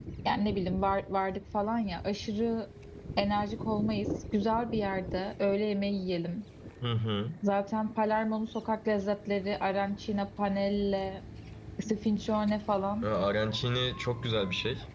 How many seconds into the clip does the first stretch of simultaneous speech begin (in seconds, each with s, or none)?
none